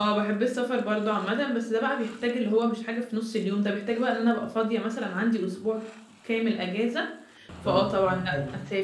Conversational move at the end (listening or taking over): taking over